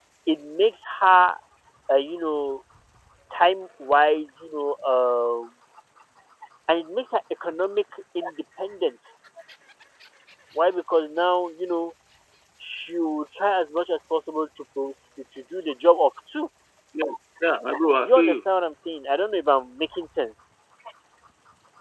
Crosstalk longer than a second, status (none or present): none